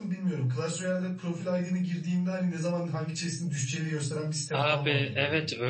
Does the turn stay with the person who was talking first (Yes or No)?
No